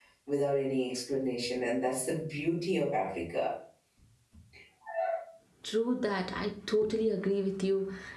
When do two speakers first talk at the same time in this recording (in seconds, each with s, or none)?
none